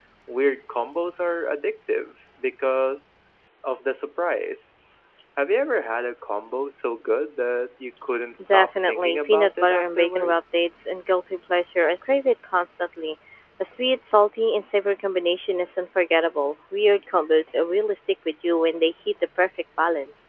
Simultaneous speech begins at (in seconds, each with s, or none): 8.4 s